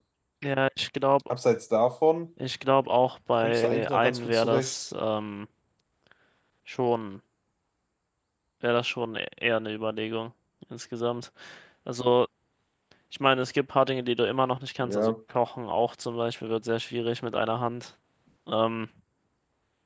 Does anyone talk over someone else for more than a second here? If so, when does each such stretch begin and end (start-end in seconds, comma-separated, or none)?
3.4-4.8